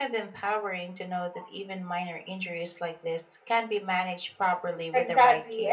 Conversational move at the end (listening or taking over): taking over